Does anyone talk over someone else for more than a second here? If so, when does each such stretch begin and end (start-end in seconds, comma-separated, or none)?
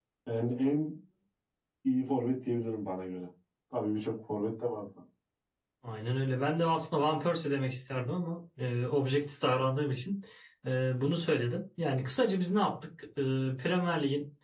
none